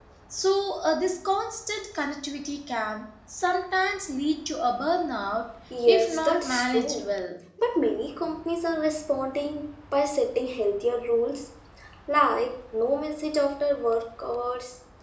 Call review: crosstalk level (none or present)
present